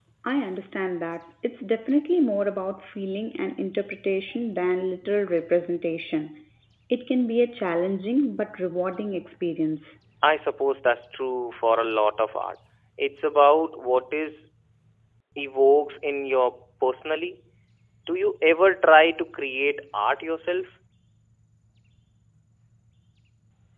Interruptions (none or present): none